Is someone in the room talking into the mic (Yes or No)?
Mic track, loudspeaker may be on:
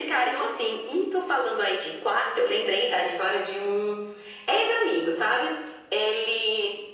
No